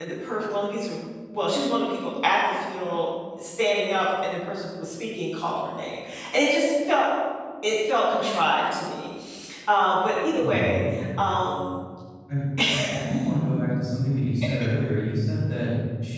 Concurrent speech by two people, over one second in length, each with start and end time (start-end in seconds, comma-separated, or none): none